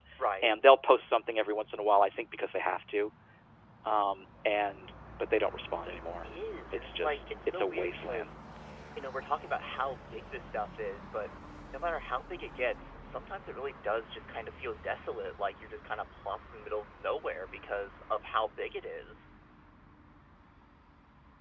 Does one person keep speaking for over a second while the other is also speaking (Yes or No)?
Yes